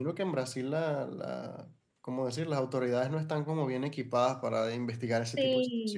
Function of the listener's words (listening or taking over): taking over